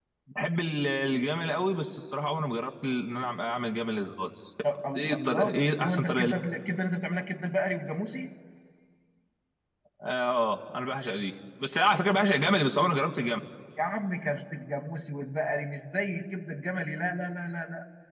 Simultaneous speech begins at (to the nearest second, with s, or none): 5 s